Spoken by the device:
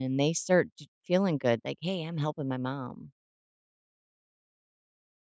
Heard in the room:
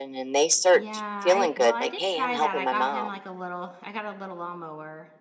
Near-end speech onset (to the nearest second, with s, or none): 1 s